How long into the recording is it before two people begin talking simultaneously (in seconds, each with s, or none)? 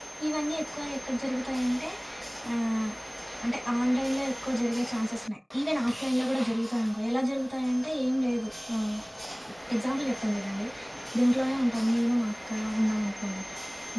none